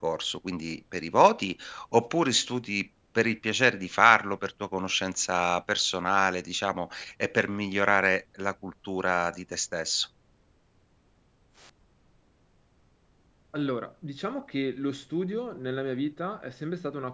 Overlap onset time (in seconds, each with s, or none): none